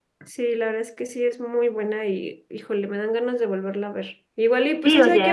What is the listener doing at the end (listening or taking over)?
taking over